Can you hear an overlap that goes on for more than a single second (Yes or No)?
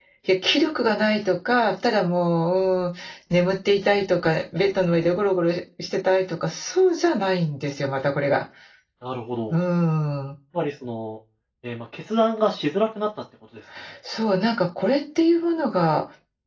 No